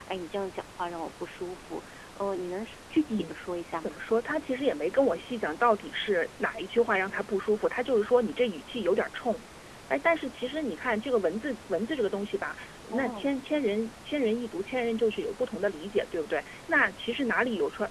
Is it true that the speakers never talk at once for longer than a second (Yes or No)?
Yes